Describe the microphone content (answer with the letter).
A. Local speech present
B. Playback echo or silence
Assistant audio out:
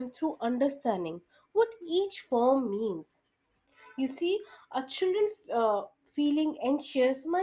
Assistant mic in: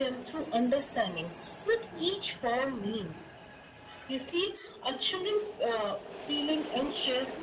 B